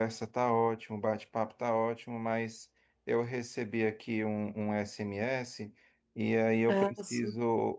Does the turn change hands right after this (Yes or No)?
No